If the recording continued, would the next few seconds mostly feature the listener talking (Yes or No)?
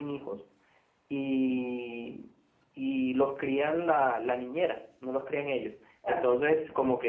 No